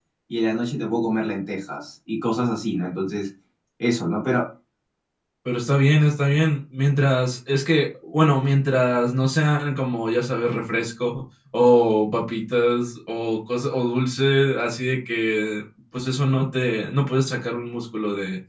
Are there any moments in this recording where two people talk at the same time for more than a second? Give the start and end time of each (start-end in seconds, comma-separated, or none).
none